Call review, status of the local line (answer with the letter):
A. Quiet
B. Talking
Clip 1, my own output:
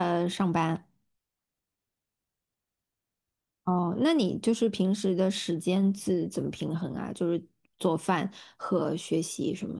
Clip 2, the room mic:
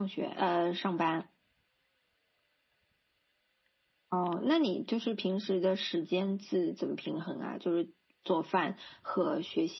A